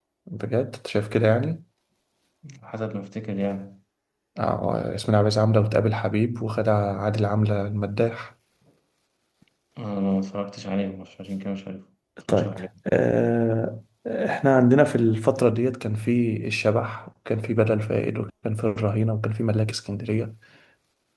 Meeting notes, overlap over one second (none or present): none